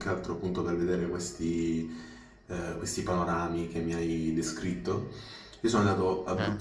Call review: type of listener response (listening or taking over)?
listening